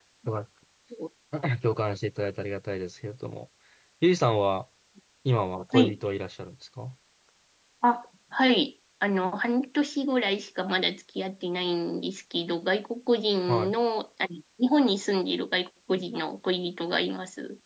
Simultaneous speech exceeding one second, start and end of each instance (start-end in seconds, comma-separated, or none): none